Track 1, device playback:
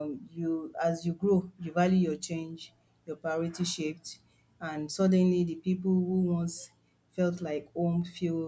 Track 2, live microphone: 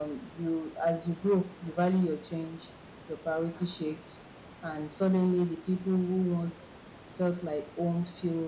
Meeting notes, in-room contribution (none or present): none